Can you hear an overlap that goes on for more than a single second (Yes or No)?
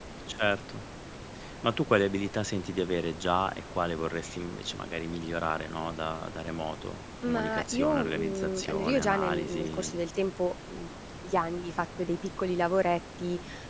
Yes